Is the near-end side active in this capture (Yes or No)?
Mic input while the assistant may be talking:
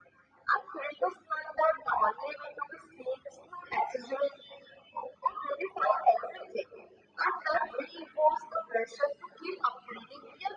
No